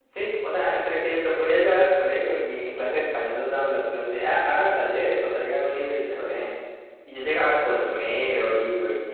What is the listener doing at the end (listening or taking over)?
listening